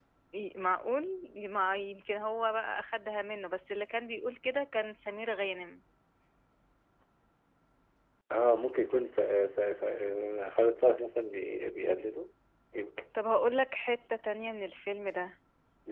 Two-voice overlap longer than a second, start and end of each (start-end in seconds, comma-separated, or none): none